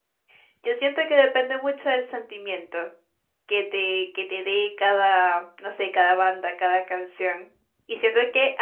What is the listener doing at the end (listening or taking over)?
listening